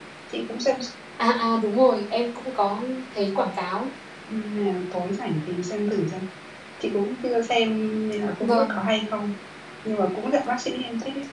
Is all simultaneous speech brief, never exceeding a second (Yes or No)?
Yes